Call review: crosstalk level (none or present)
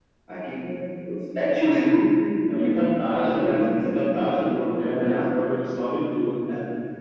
present